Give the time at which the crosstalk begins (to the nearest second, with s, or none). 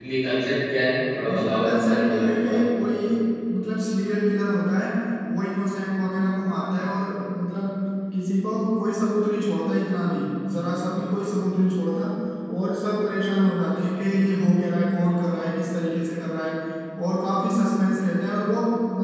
1 s